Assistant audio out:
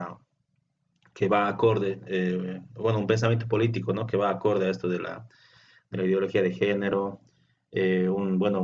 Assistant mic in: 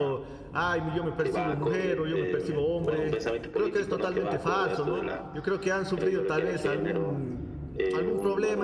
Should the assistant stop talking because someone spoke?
Yes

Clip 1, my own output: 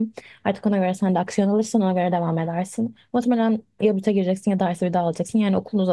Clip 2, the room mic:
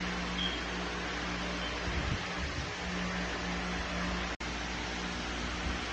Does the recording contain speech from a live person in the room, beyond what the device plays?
No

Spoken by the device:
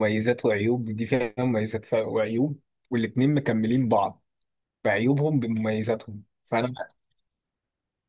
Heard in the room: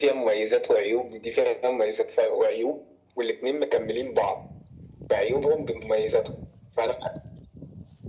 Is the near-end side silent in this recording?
Yes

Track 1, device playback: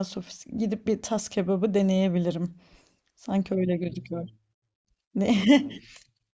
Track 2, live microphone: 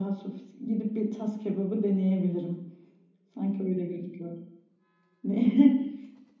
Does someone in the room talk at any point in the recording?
No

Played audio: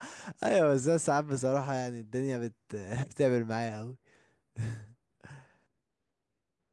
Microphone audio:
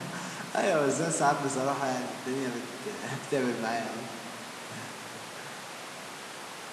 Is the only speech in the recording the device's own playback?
Yes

